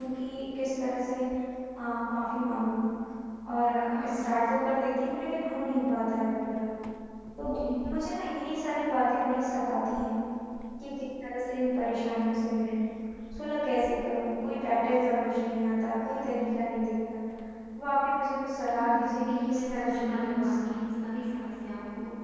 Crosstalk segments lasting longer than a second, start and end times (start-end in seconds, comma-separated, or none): 18.6-20.7